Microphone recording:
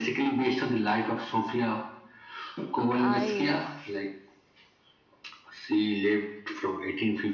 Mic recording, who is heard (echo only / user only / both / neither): both